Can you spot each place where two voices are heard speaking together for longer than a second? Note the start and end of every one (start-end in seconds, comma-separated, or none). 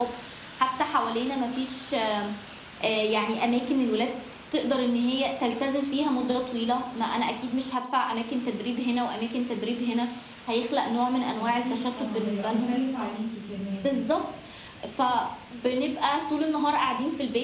11.3-12.7